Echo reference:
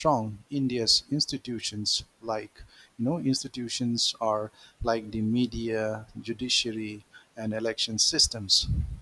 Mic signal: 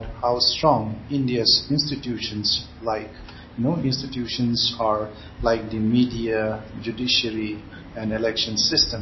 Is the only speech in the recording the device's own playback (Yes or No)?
Yes